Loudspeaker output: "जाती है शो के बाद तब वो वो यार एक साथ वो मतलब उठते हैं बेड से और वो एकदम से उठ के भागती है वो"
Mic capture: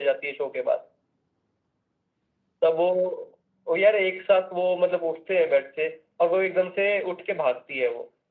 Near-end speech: none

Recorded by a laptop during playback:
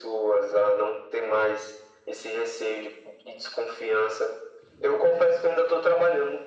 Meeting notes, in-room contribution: none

